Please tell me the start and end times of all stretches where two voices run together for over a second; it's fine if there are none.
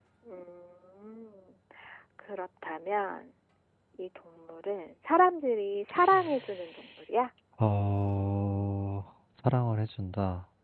none

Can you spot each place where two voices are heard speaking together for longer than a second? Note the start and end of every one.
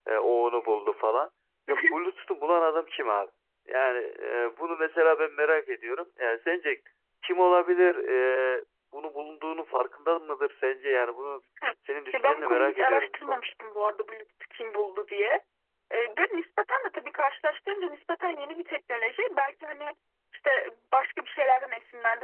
12.1-13.5

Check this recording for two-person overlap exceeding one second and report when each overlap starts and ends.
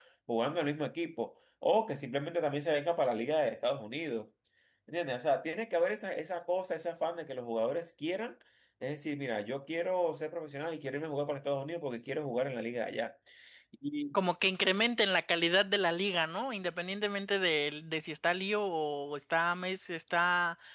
none

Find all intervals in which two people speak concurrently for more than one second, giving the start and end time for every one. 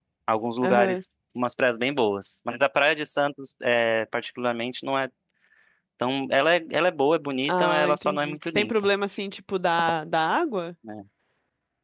7.5-8.9

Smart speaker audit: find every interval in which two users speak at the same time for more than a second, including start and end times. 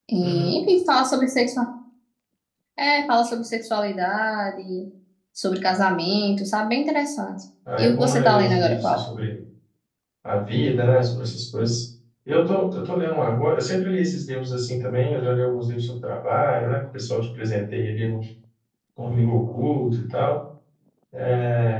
7.8-9.0

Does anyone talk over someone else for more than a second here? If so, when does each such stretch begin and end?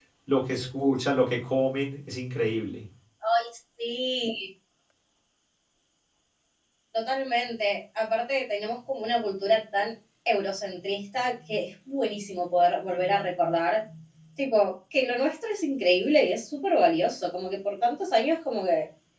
none

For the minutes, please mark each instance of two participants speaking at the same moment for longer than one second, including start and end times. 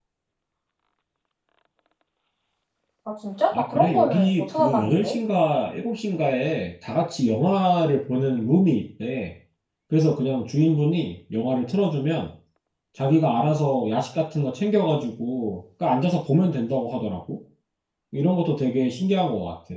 3.5-5.1

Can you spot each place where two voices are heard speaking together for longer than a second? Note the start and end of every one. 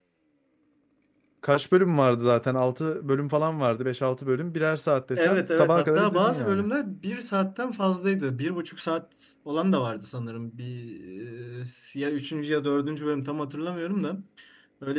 5.2-6.6

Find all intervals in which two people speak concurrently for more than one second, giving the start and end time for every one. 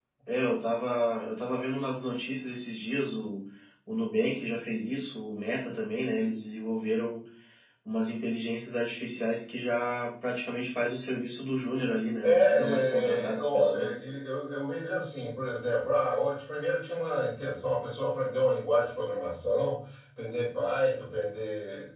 12.2-14.0

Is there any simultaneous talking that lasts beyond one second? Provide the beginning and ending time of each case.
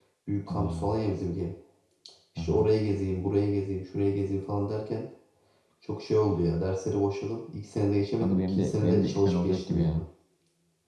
8.2-9.9

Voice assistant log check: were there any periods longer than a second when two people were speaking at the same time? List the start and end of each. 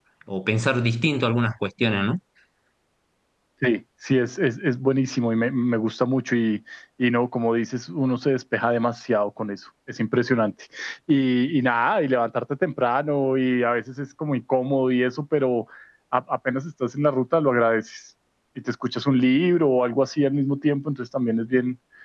none

